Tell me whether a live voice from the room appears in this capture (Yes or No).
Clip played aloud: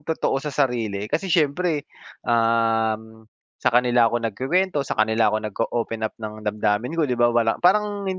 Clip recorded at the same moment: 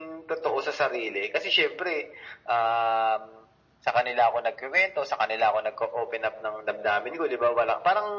No